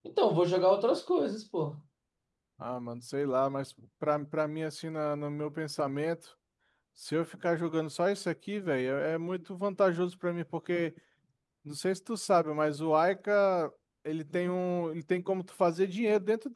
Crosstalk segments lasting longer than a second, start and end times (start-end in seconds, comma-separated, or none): none